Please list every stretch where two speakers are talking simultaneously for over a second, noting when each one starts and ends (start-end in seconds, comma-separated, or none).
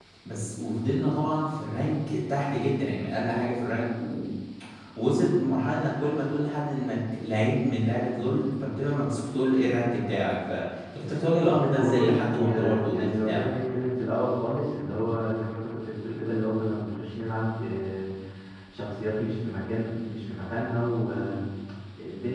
11.7-13.5